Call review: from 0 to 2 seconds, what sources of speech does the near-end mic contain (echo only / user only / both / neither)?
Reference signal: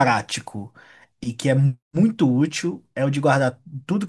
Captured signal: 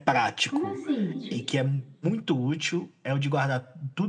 both